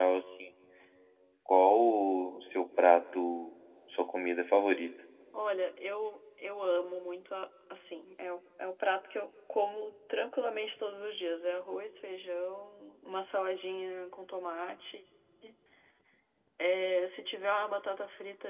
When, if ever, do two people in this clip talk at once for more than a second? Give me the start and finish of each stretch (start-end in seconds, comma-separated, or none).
none